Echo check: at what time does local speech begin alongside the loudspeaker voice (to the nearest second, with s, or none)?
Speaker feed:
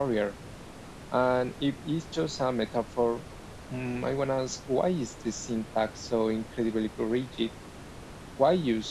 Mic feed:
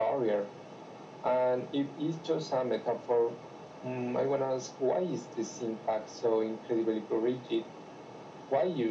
none